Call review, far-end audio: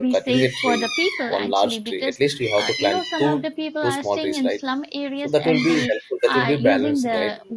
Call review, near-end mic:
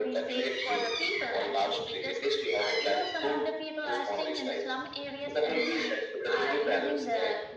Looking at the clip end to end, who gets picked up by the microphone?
echo only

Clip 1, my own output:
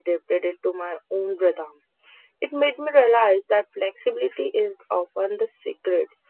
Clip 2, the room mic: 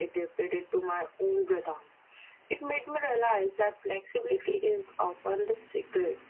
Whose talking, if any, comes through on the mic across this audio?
echo only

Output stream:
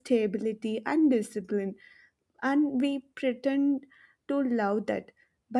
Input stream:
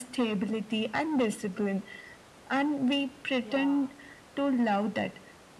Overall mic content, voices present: both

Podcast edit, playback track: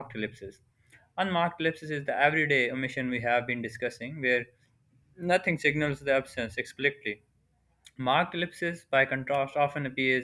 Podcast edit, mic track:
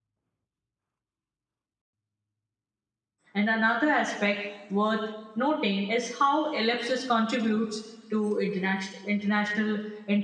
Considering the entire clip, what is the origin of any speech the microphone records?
user only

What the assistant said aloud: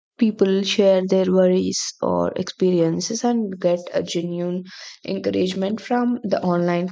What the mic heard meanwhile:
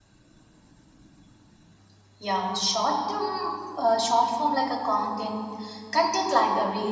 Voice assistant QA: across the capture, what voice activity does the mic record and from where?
user only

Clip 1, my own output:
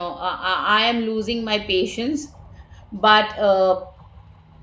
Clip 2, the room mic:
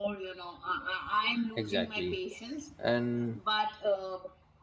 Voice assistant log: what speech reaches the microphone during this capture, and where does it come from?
both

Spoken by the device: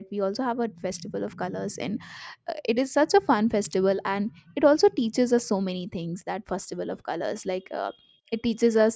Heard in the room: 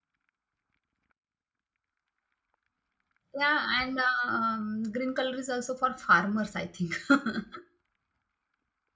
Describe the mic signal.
user only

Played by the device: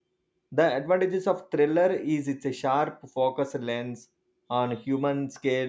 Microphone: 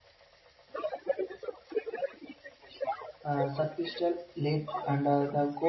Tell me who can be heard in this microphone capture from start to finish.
both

